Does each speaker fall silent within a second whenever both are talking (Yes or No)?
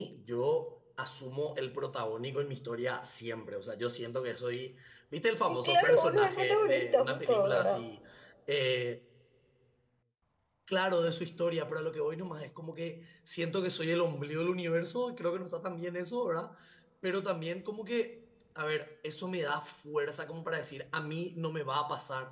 No